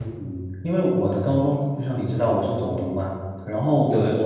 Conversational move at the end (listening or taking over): listening